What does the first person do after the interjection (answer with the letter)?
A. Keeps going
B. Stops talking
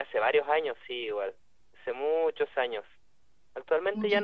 A